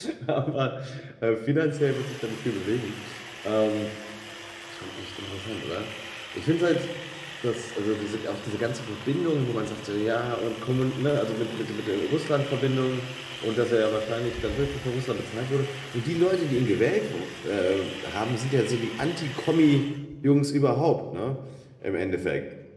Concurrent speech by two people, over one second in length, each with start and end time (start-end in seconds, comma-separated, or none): none